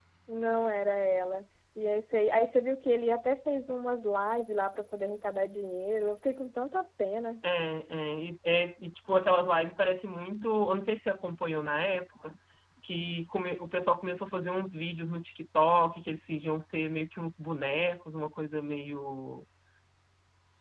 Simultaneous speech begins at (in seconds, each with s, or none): none